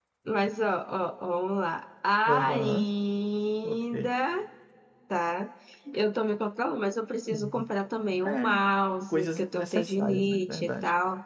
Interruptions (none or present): present